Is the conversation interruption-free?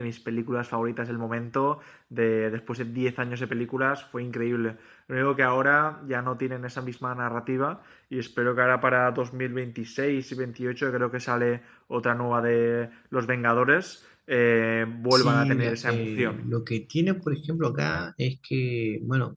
No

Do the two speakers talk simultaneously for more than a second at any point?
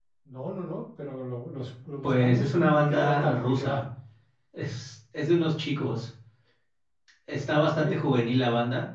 Yes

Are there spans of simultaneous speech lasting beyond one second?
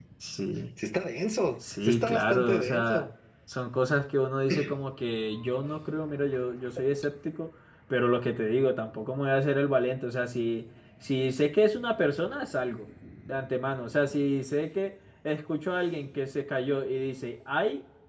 Yes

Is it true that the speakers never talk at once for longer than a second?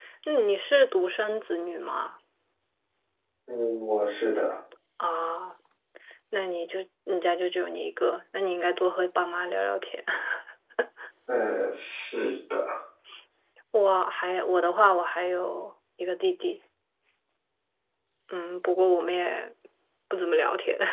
Yes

